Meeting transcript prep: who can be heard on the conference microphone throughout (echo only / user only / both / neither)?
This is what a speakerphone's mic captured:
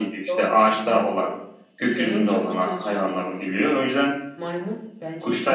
both